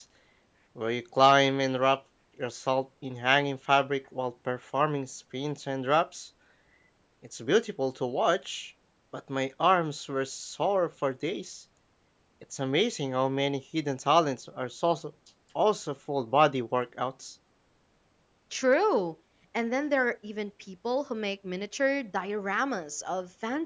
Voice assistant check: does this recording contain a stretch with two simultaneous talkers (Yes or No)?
No